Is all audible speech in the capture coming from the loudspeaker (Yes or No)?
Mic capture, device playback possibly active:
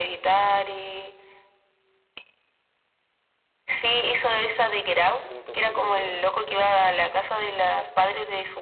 No